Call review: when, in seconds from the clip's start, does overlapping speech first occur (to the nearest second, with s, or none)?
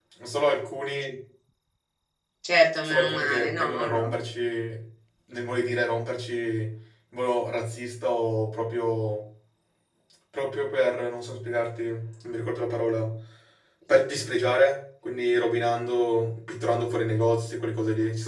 3 s